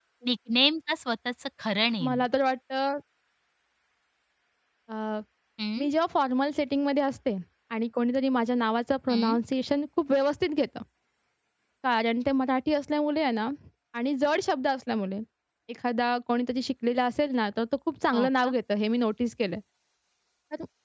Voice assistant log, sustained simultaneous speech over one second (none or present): none